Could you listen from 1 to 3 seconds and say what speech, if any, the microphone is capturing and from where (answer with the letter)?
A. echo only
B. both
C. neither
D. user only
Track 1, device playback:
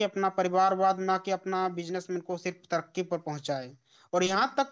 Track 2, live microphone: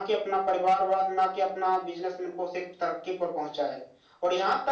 A